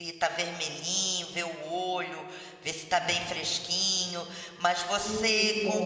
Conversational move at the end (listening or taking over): listening